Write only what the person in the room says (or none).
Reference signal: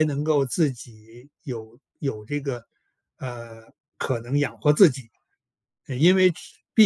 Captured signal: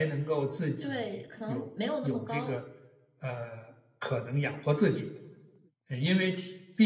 对，可能没有那么高。